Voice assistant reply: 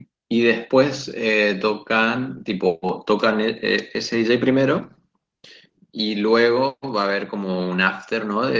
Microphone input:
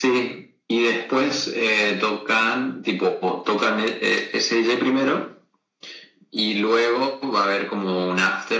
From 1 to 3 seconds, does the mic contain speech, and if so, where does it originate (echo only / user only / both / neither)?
echo only